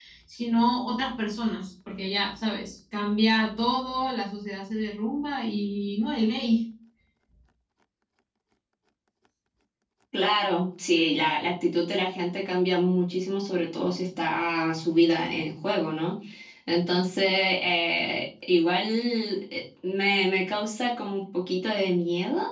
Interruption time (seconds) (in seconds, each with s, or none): none